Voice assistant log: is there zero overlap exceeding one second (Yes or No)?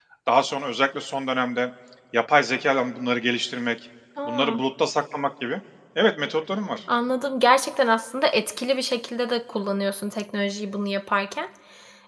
Yes